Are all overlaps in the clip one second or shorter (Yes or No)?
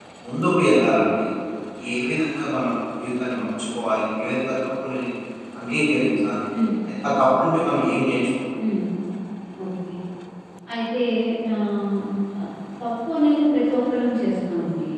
Yes